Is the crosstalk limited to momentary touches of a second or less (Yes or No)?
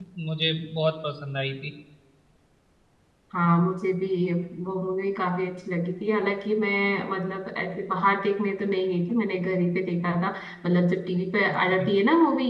Yes